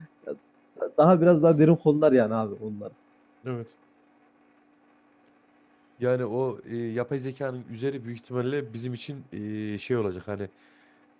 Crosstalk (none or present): none